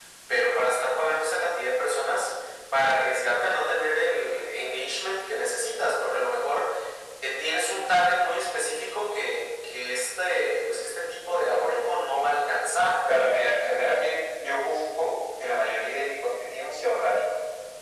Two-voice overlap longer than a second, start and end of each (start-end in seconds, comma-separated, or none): none